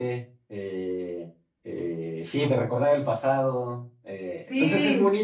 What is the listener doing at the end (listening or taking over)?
listening